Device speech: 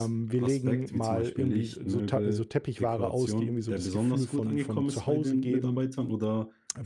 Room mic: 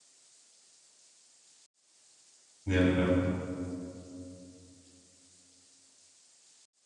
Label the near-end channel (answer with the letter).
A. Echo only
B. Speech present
B